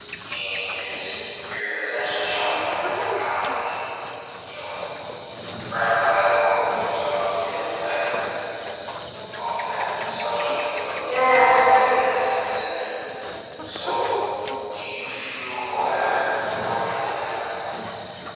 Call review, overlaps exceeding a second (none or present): none